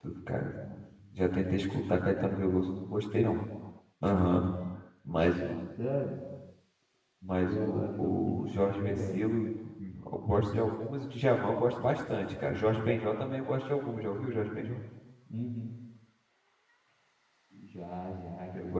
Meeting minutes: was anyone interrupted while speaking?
Yes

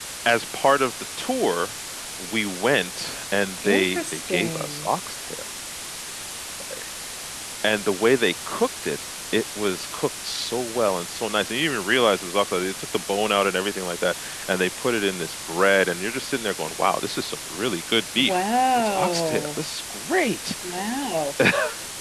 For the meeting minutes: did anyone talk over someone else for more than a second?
Yes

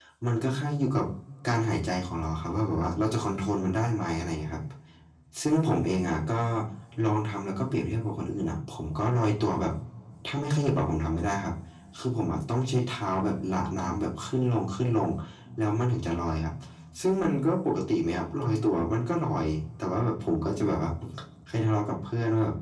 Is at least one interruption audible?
No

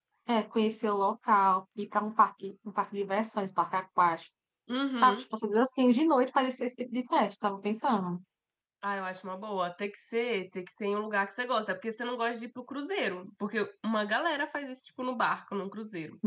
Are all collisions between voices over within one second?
Yes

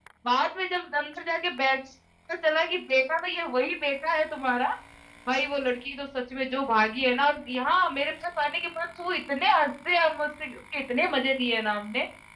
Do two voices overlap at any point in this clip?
No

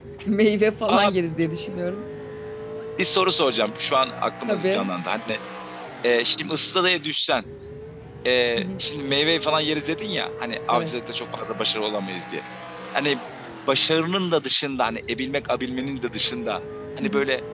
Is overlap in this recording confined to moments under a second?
Yes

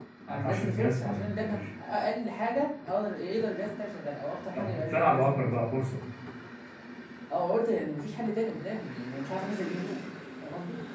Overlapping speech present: Yes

